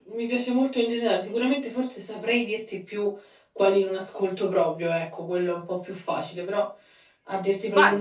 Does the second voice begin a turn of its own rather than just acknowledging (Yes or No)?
Yes